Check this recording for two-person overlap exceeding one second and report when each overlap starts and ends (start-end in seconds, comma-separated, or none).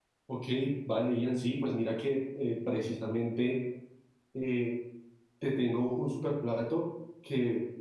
none